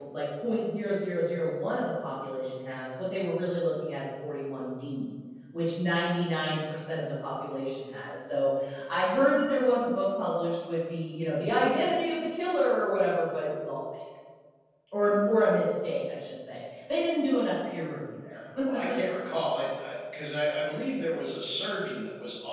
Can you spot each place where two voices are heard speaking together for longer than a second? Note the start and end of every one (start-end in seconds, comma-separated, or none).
none